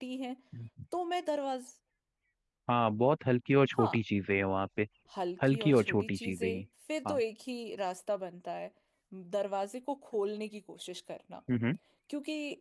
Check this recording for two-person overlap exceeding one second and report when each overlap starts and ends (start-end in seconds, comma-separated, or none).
5.4-6.6